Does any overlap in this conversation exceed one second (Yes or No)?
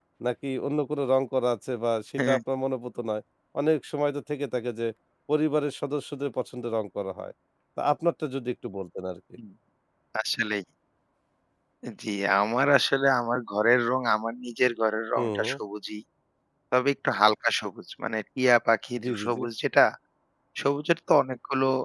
No